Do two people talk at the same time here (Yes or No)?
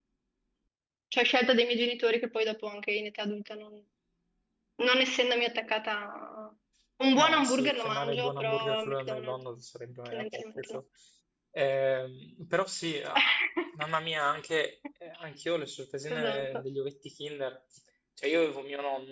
Yes